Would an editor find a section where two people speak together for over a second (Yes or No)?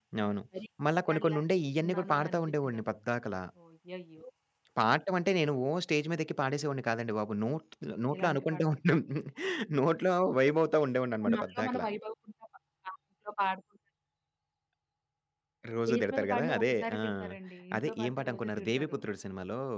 Yes